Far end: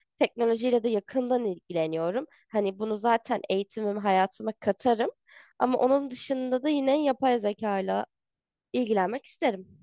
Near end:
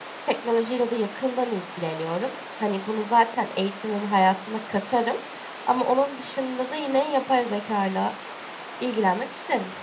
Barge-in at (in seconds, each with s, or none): none